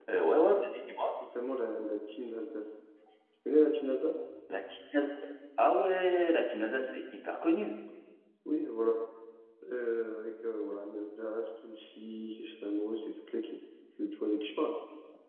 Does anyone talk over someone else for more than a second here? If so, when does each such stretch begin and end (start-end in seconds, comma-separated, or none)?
none